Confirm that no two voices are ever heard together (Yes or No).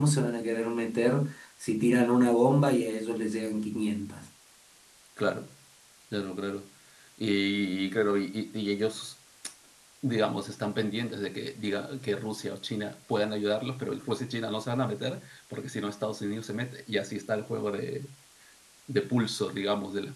Yes